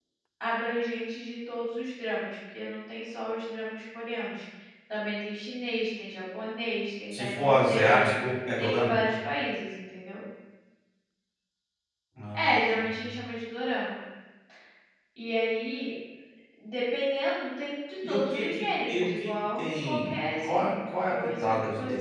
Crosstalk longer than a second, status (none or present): present